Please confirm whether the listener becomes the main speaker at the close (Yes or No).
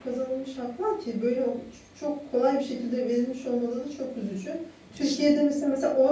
No